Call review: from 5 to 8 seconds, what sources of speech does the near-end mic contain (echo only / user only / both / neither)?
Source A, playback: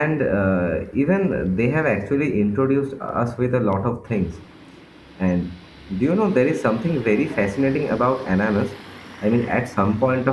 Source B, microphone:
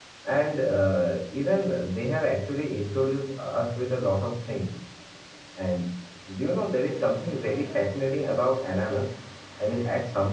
echo only